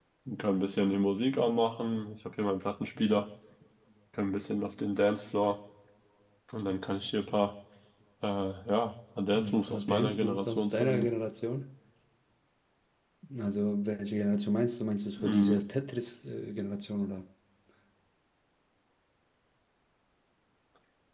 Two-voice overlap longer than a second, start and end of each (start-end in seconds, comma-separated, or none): 9.3-11.1